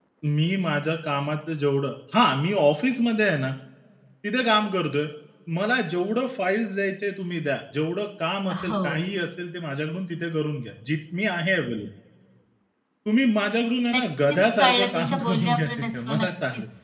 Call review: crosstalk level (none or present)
present